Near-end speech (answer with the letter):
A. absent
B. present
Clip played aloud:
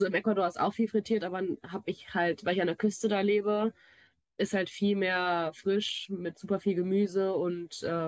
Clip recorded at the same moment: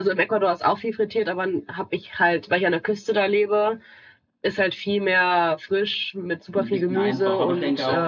B